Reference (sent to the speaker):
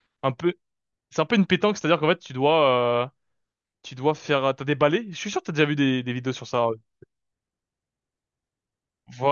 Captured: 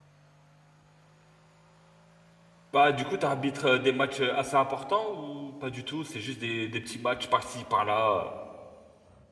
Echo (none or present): none